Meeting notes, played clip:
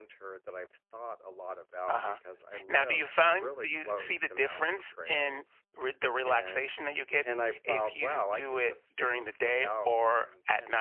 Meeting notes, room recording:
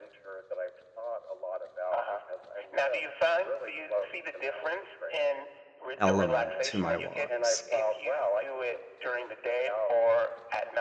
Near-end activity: present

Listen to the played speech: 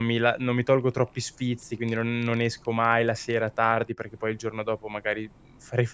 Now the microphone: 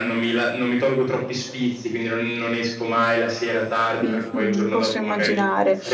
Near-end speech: present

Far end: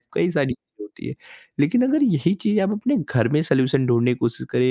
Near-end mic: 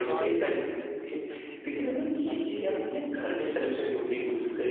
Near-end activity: present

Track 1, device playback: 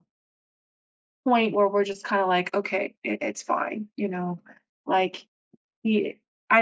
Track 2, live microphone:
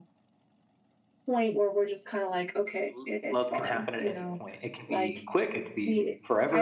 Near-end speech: present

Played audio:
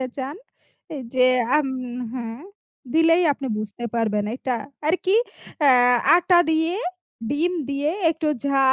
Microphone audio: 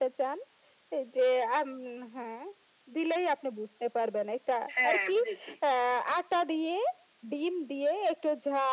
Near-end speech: present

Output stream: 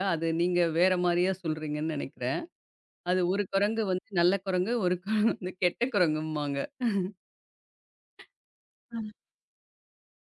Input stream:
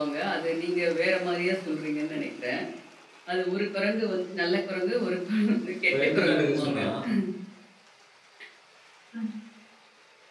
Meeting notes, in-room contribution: present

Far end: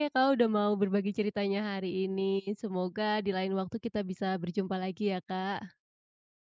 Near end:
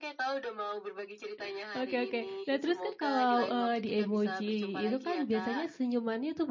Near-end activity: present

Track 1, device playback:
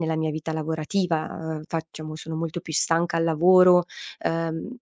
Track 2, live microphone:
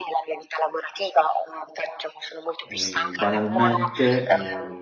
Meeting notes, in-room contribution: present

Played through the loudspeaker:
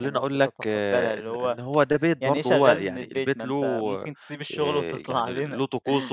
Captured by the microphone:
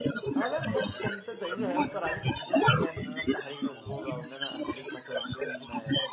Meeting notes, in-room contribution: present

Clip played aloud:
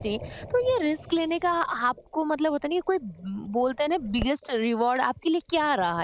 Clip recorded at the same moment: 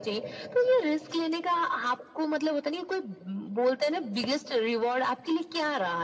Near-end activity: none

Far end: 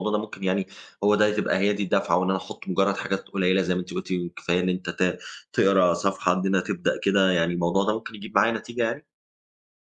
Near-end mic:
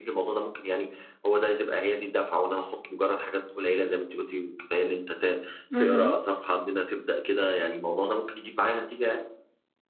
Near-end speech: present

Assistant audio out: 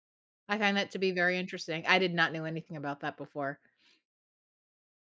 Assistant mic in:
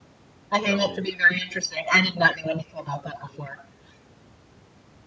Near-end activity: present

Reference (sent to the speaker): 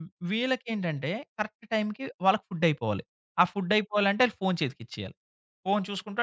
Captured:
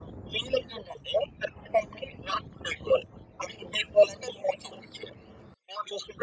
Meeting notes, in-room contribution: none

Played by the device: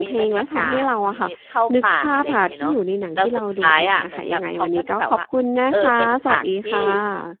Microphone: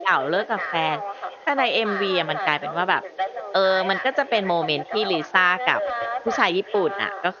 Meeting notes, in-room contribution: present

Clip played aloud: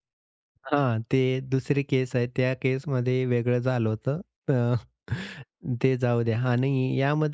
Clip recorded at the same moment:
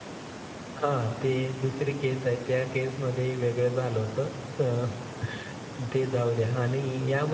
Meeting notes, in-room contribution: none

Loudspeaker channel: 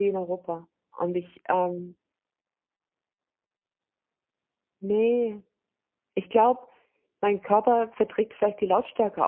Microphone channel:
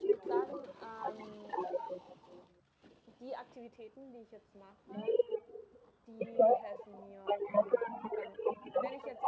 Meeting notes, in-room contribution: present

